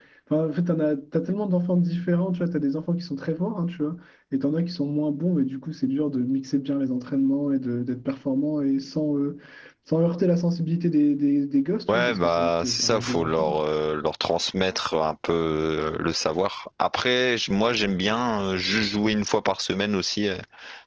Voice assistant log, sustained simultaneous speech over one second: present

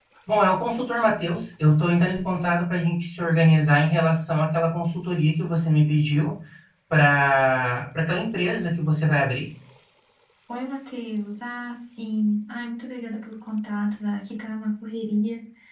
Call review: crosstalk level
none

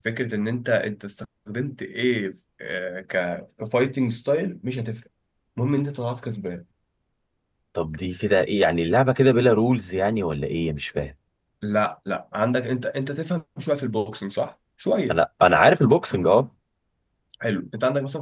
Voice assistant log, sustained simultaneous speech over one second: none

